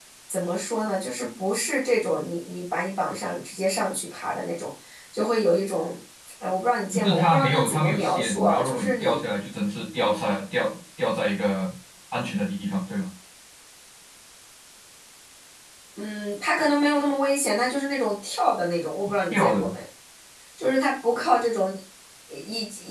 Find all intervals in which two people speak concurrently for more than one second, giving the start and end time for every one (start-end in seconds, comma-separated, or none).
6.9-9.2